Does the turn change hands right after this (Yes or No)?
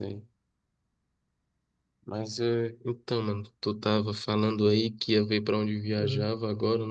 No